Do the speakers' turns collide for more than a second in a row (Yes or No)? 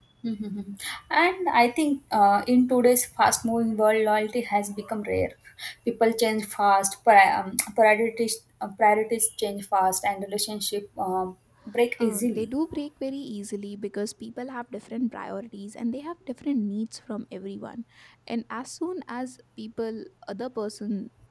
No